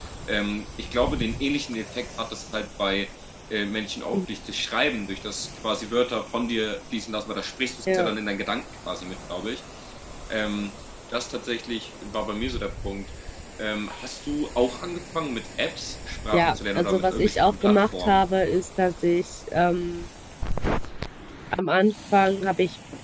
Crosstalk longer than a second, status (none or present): present